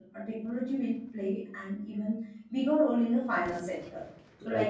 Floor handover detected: No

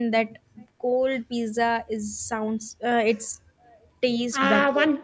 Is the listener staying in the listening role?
No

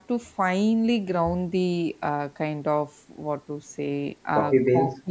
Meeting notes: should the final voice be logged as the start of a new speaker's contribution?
No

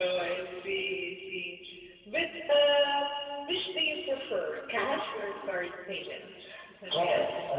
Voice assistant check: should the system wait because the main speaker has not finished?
No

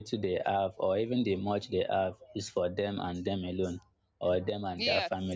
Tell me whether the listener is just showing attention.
Yes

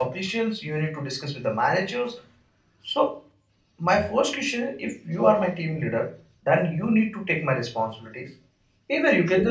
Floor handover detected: No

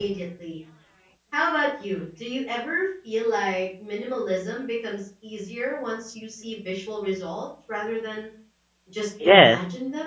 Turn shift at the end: Yes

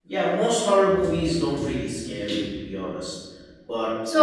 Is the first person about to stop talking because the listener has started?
Yes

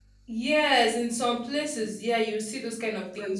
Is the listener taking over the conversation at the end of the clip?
No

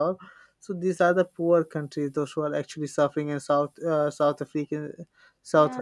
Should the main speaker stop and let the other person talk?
No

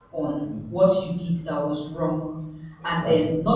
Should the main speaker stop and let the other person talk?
No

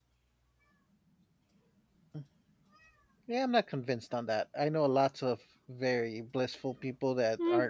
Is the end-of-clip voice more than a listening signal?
Yes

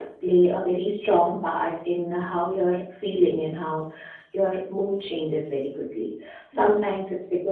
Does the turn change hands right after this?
No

